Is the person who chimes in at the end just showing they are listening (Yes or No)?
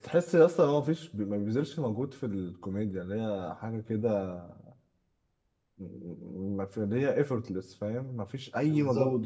Yes